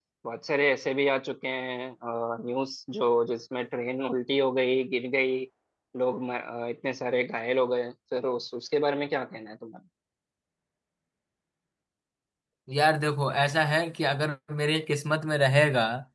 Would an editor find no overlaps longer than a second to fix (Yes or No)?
Yes